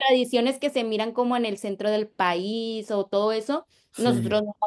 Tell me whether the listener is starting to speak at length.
No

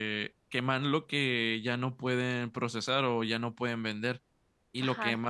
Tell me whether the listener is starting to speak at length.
No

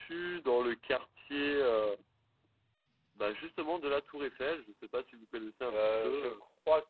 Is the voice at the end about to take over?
Yes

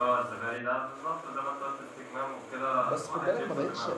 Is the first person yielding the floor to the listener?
Yes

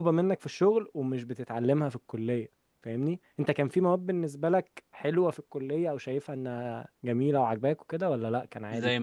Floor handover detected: Yes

